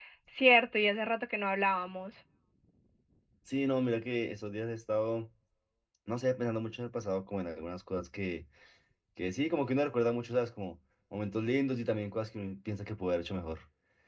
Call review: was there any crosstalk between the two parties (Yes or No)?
No